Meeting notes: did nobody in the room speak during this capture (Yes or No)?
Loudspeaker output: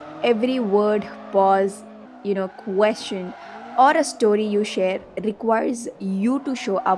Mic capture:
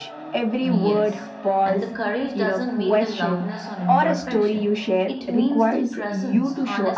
No